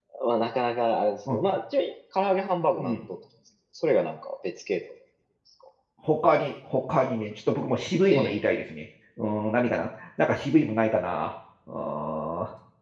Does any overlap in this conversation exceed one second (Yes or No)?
No